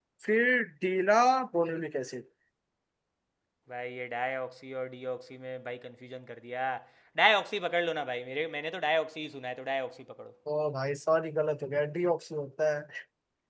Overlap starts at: none

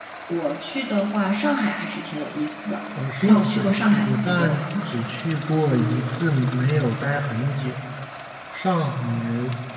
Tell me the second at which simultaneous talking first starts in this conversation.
3.2 s

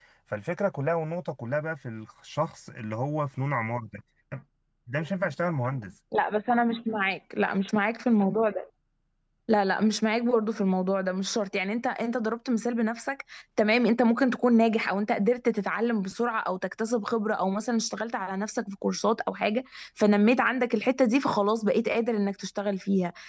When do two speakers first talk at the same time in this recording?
none

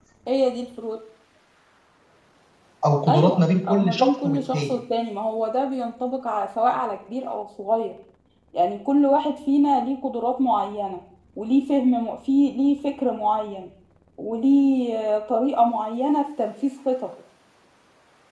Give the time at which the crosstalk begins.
3.1 s

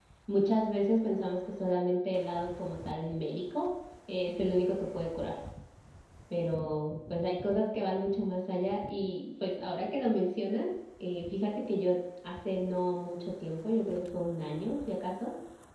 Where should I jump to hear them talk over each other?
none

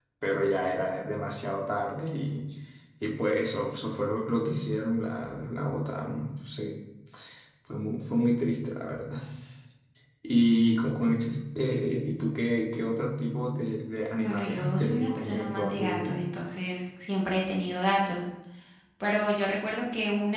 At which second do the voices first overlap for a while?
14.1 s

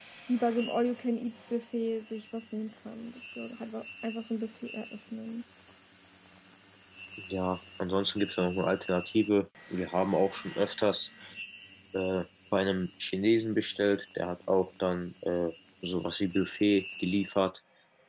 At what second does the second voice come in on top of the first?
none

